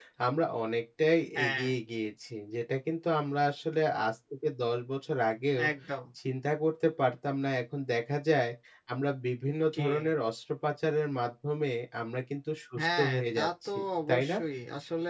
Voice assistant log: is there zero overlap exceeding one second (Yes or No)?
No